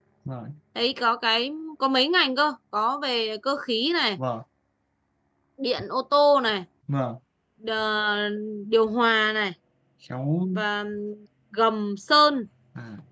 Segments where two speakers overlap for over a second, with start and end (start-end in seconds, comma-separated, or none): none